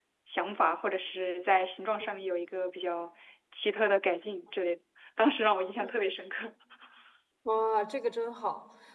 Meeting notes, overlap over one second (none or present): none